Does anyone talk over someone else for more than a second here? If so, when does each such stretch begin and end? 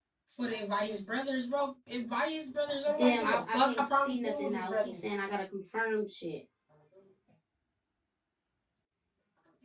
3.0-5.0

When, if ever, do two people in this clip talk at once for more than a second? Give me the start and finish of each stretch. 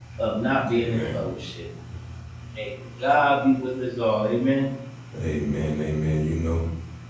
none

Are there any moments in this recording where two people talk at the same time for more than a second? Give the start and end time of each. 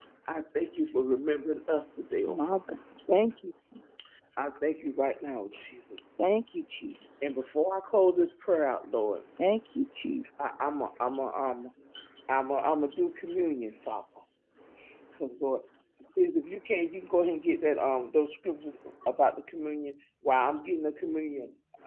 none

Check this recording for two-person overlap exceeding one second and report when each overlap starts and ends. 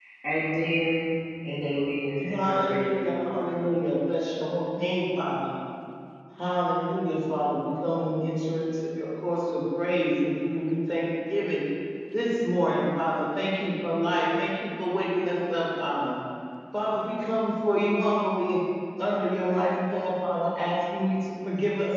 2.2-3.6

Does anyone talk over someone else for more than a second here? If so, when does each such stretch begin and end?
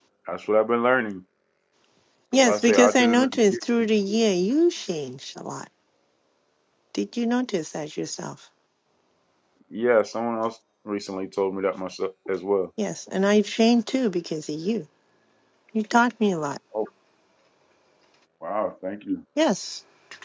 2.3-3.6

